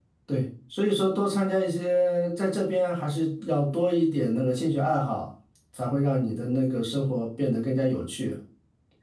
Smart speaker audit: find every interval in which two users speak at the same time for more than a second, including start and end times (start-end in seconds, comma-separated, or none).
none